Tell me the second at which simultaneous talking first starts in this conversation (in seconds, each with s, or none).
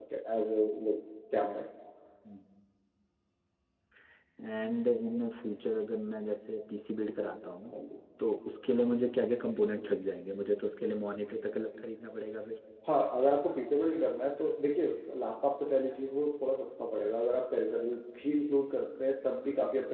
none